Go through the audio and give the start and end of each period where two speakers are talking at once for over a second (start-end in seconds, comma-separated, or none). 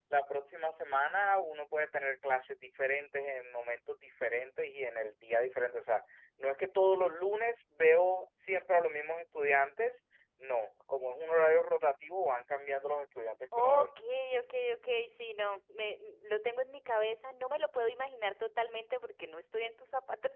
none